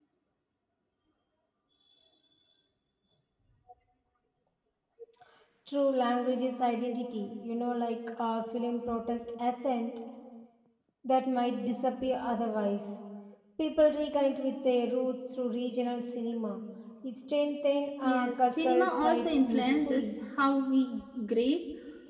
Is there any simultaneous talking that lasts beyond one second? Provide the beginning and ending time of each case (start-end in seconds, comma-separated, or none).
18.1-20.1